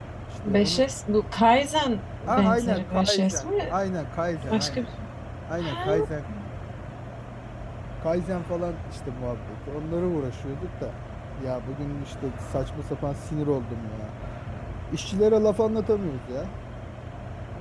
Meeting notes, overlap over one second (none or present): present